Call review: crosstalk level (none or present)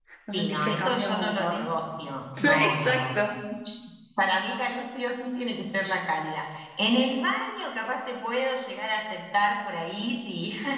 present